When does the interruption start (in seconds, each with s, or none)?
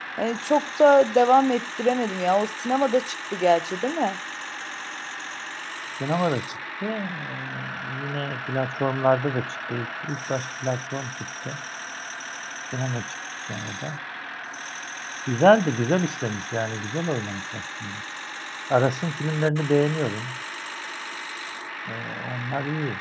none